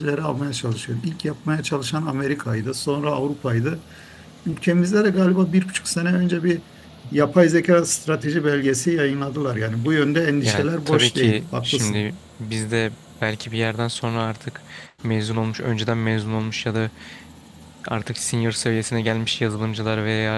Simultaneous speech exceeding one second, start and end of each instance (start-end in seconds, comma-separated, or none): 10.4-12.1